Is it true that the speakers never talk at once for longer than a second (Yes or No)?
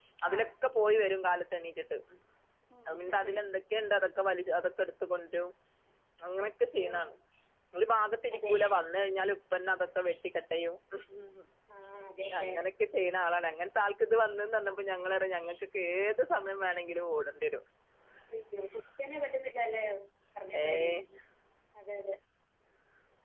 Yes